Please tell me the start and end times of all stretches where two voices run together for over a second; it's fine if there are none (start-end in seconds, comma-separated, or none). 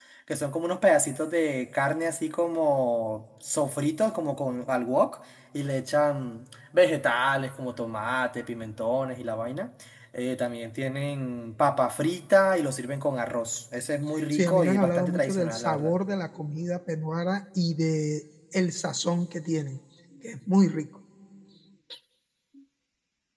14.3-15.9